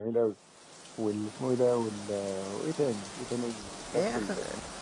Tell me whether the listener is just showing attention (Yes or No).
No